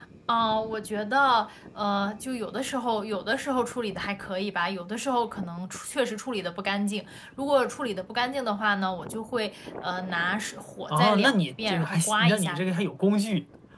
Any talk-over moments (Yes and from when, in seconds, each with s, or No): Yes, from 10.9 s